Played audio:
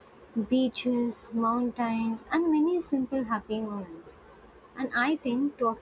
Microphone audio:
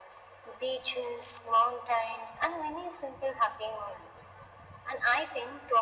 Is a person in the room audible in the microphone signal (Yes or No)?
No